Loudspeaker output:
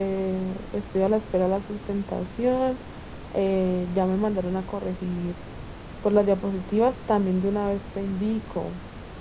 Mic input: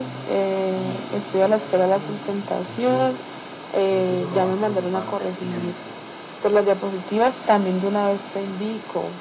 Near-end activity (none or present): present